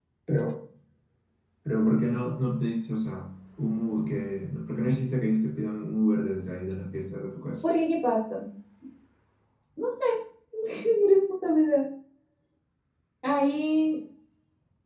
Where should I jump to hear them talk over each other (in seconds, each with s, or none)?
none